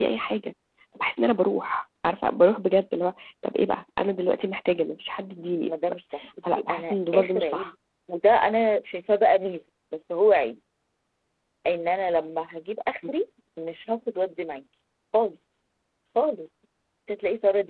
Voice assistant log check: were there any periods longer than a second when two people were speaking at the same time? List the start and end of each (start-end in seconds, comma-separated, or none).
6.5-7.7